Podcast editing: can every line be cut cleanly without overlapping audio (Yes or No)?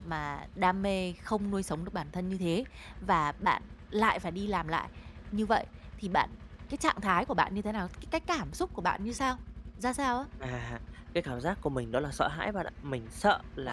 Yes